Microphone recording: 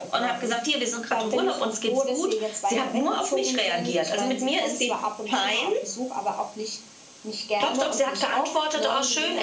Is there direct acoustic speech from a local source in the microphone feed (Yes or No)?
No